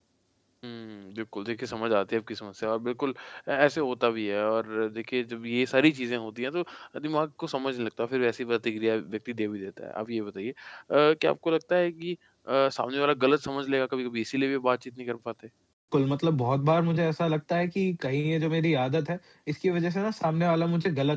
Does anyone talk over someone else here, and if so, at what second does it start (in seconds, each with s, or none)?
none